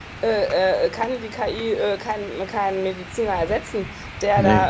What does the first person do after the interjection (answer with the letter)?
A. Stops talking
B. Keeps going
B